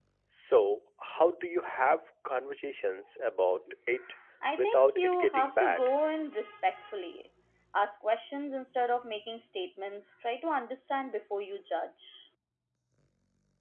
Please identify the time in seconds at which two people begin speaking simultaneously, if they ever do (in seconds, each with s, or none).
4.6 s